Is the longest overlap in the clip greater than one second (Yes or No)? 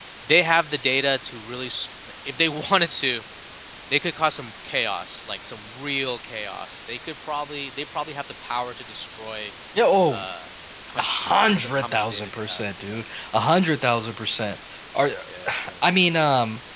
Yes